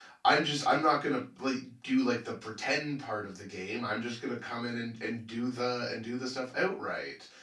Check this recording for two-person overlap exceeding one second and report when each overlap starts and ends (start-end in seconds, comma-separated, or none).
none